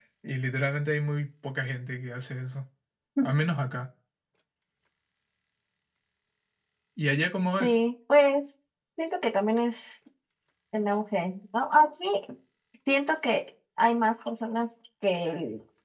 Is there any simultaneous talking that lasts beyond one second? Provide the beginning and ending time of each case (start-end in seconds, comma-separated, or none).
none